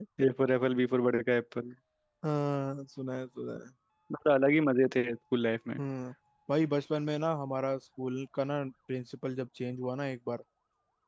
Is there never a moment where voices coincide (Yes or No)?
Yes